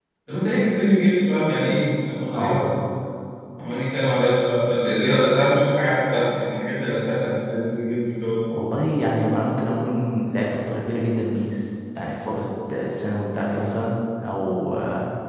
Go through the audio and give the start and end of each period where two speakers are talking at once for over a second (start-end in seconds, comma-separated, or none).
none